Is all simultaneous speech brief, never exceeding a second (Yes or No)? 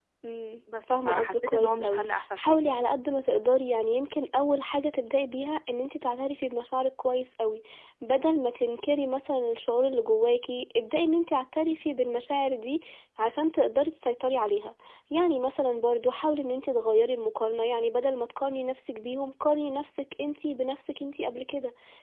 No